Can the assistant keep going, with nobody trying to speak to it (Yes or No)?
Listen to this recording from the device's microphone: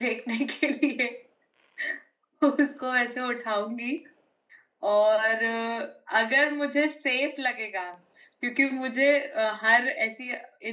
Yes